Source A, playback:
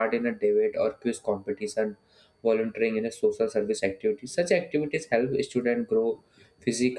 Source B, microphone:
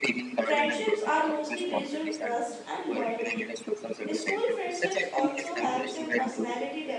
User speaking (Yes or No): Yes